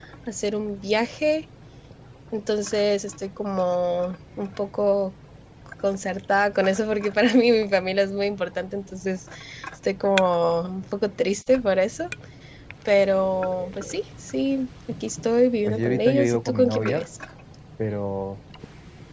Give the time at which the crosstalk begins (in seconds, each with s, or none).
15.6 s